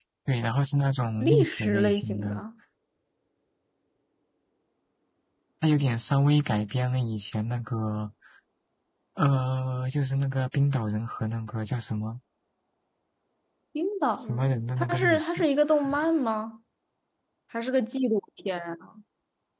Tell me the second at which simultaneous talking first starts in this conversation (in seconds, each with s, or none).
1.2 s